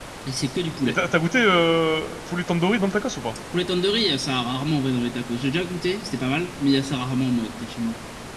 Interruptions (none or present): none